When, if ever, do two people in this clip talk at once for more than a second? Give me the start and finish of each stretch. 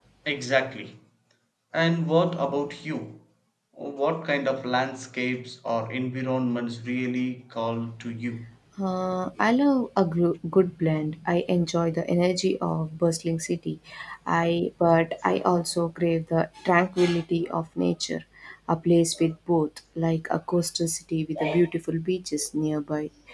none

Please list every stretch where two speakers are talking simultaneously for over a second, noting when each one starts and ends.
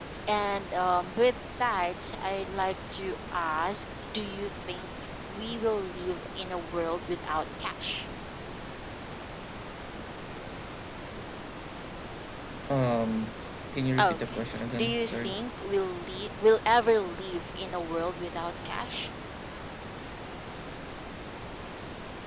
14.0-15.3

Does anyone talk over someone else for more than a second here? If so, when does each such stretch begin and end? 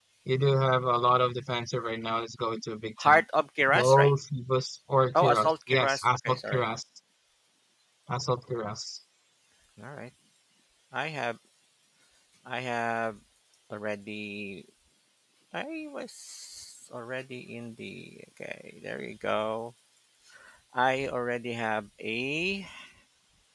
5.1-6.6

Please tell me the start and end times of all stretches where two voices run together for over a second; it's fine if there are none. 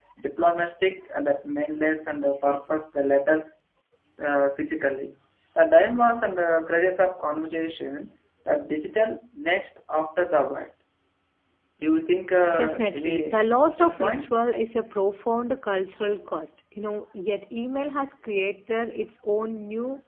12.5-14.4

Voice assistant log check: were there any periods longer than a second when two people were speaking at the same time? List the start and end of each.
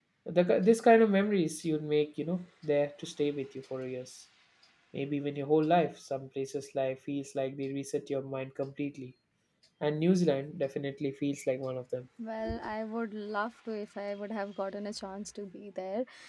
none

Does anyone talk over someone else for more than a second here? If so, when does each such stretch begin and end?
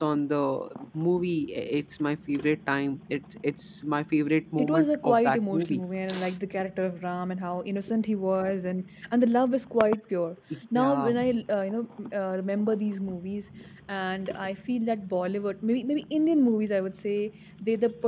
4.6-5.8

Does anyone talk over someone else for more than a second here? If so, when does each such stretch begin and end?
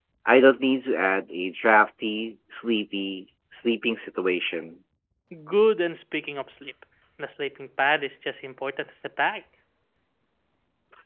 none

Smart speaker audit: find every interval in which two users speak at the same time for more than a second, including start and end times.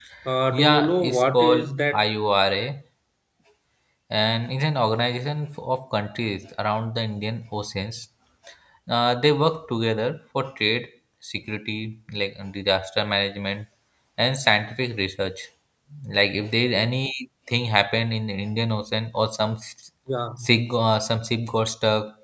0.5-1.9

